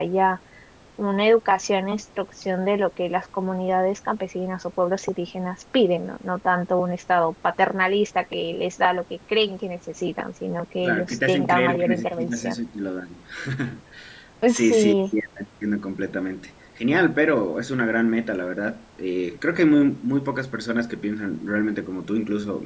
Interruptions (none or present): present